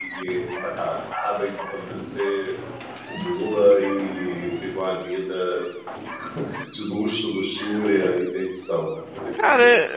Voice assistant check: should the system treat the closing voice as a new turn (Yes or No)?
Yes